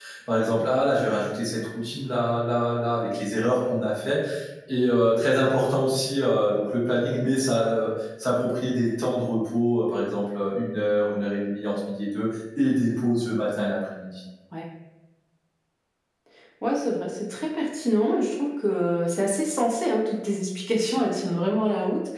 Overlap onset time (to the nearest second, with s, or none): none